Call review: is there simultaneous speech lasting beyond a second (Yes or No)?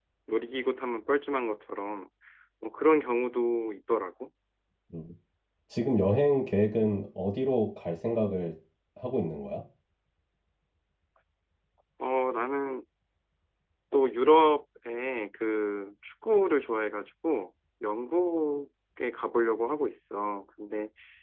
No